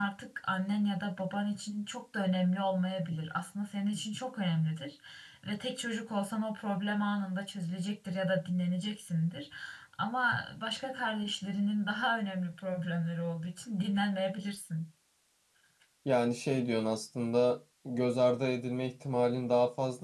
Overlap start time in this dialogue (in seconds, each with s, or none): none